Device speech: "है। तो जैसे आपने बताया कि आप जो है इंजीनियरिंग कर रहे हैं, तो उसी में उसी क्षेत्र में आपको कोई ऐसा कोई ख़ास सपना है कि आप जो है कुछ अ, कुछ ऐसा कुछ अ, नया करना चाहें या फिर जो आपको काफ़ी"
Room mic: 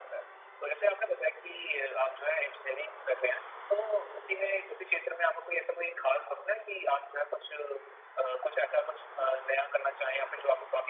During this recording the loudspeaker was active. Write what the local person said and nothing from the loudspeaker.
none

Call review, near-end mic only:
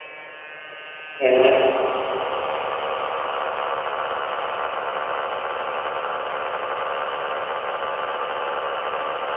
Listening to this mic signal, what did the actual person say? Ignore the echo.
Mhm.

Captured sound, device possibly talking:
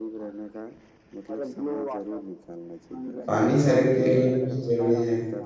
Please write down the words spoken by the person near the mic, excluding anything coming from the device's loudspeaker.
पानी शरीर के लिए बहुत ज़रूरी है।

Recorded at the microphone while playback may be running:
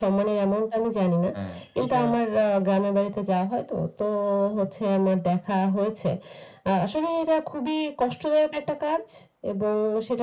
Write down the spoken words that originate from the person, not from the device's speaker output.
হ্যাঁ, এটা

